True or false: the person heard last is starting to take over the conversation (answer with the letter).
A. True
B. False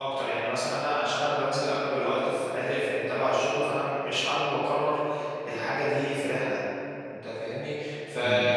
B